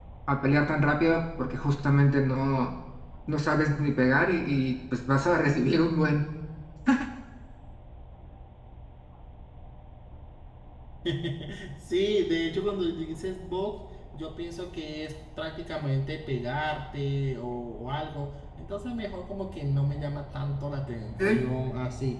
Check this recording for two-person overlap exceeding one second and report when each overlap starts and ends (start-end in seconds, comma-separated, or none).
none